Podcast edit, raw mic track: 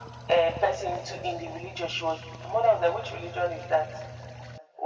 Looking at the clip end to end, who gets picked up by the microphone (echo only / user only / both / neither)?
echo only